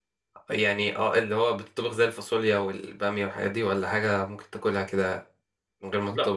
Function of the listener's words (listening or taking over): taking over